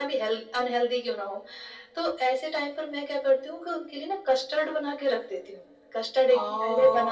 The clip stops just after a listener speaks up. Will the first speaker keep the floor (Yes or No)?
No